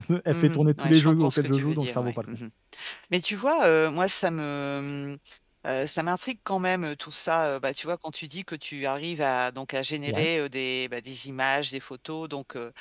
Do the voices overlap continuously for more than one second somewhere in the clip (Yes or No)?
Yes